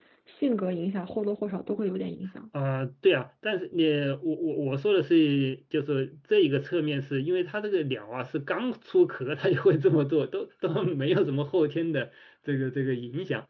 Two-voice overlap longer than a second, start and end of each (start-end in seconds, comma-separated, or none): none